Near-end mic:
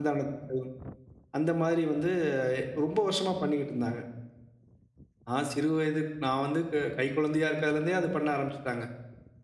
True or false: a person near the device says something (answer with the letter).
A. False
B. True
B